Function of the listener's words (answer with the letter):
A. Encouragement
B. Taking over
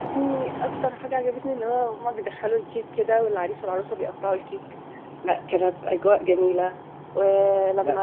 A